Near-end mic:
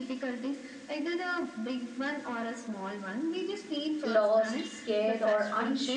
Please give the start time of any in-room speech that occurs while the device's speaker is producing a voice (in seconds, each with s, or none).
4.0 s